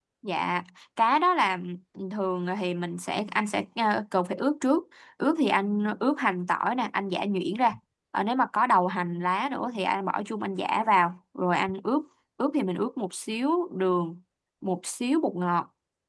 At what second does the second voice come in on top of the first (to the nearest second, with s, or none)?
none